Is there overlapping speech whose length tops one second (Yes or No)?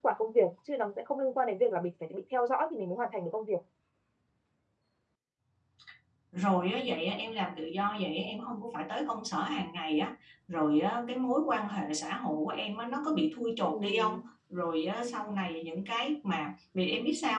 No